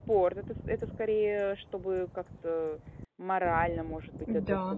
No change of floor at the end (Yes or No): No